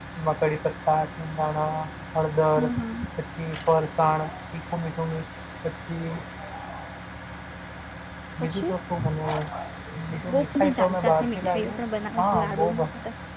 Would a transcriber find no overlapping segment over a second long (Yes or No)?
No